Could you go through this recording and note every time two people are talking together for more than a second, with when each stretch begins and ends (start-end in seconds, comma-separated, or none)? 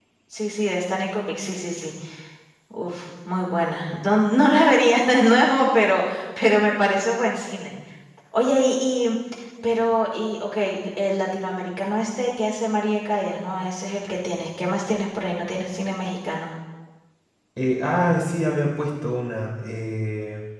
none